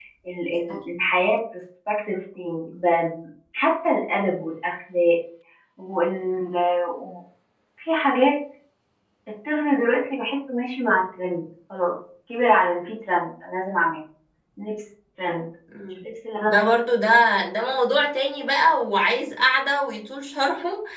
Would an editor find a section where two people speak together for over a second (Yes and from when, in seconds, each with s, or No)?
No